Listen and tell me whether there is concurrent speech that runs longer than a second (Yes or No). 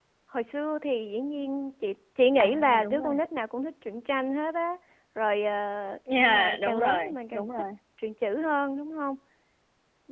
Yes